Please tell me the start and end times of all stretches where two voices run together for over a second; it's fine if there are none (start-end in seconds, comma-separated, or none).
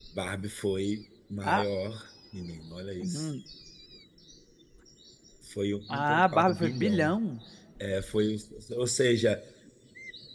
5.9-7.2